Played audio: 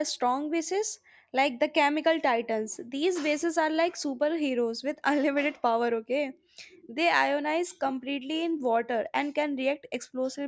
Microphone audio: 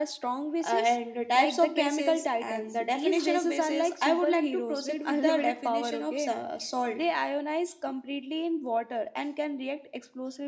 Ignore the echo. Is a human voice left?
Yes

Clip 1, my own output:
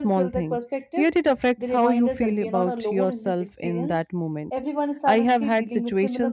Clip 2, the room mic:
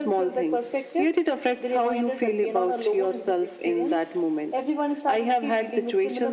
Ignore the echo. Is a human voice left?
No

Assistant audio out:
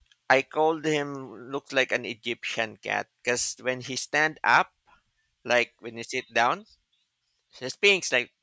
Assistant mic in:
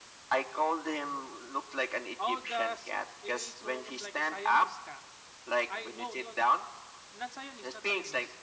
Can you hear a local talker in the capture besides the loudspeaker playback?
Yes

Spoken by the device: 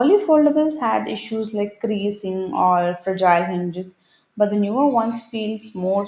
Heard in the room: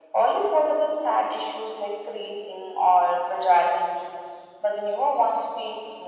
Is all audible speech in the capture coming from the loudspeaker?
Yes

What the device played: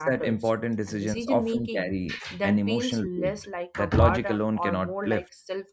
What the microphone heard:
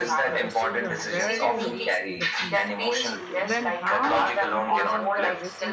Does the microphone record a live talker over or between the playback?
Yes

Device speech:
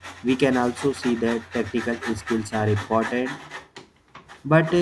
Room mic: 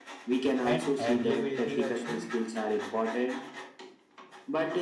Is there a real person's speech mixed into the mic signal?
Yes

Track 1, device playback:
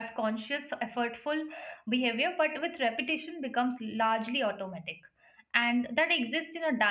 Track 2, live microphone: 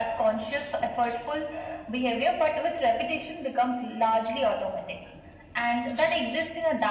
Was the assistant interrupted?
No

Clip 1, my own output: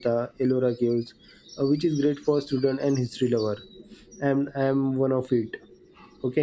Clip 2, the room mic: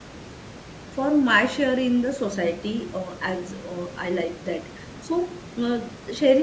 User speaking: Yes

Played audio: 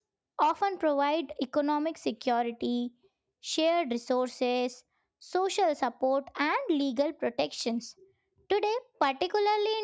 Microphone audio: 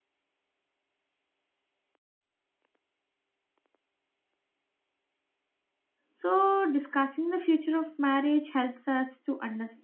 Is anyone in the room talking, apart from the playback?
Yes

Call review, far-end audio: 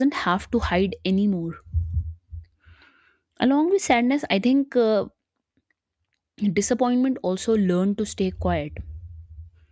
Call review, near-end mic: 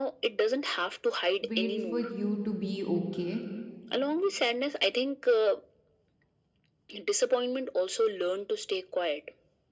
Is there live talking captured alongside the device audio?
Yes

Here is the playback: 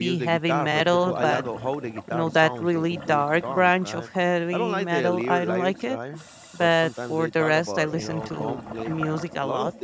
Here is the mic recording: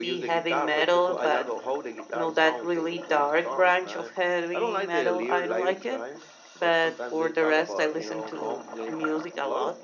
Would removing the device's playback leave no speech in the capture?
Yes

